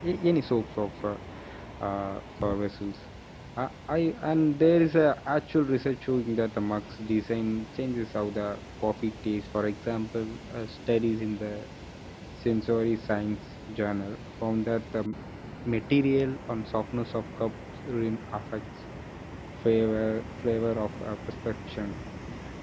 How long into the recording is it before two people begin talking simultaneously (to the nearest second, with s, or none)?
none